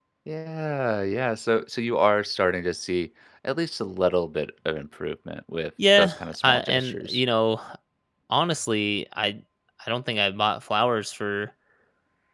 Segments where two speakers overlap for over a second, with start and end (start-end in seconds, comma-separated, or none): 6.0-7.2